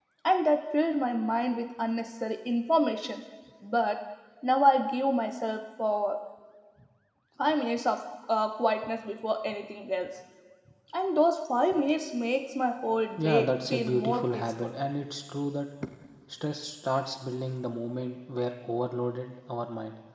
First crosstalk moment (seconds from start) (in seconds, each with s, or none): 13.2 s